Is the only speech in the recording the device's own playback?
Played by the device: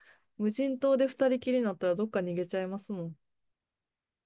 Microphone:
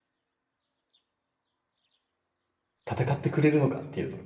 No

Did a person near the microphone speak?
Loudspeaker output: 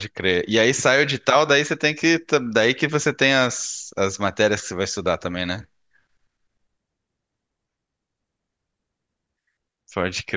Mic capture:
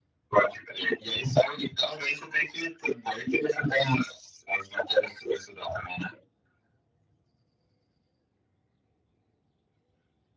No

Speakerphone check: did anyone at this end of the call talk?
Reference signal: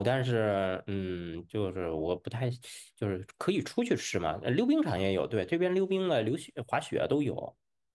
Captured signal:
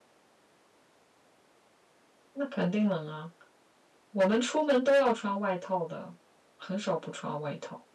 Yes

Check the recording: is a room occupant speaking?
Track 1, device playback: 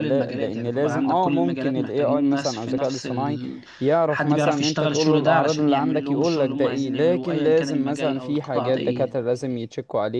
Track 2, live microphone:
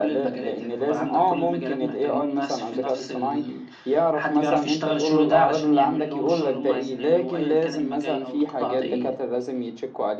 No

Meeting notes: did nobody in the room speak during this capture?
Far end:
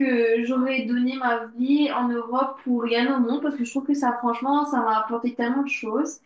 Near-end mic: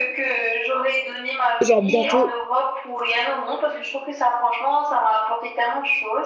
No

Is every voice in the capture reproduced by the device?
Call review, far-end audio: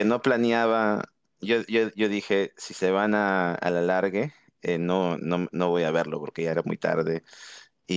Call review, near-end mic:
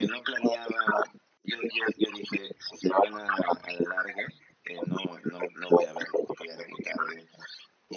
Yes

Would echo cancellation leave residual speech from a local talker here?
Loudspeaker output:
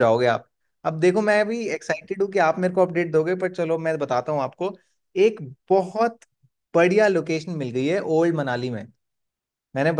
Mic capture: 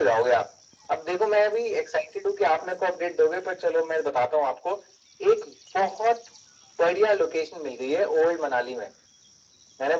No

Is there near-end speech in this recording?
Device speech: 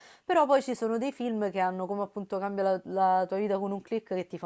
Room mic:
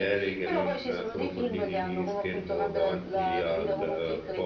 Yes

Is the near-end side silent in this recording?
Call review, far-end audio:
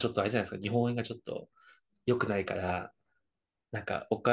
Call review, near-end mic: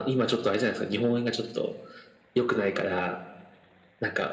Yes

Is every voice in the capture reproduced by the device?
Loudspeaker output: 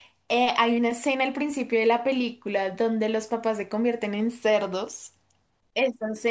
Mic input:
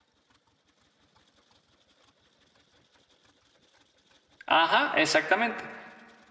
No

